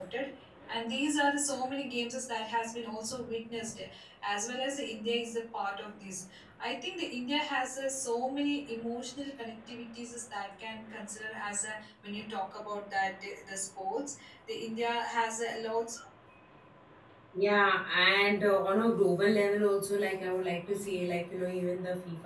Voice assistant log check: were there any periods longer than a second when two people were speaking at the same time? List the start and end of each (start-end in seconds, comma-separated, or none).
none